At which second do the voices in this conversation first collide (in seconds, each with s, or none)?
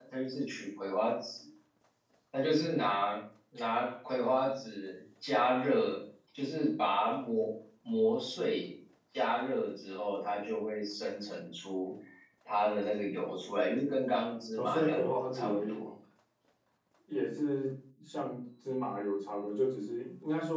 14.6 s